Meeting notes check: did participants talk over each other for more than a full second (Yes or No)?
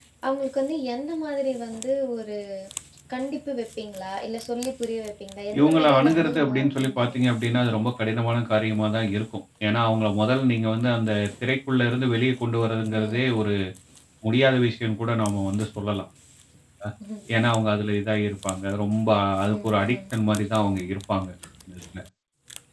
Yes